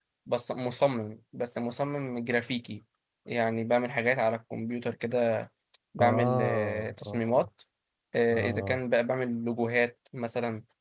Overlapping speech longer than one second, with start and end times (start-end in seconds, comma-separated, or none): 6.0-7.5